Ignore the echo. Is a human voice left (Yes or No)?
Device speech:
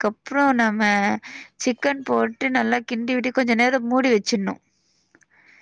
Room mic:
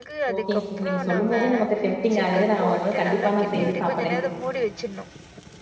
Yes